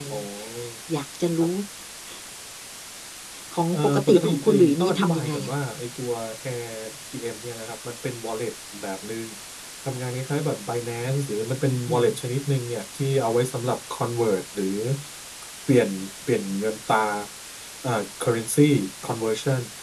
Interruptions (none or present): present